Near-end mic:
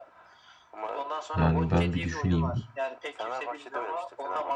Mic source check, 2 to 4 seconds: both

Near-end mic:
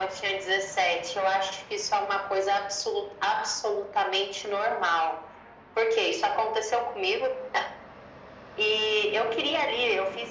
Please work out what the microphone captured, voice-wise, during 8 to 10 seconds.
echo only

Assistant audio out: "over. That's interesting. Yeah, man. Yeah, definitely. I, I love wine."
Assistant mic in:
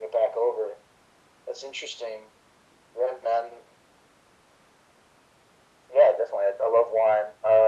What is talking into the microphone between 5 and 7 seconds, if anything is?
echo only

